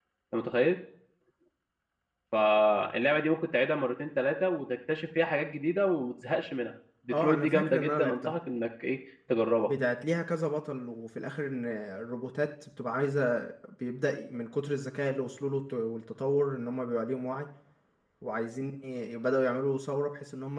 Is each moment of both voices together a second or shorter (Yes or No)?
No